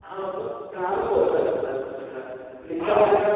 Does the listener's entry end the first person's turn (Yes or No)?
Yes